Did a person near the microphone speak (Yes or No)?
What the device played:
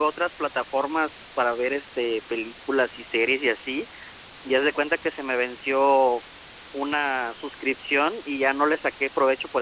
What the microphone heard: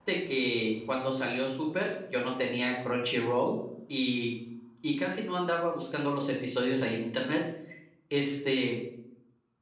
Yes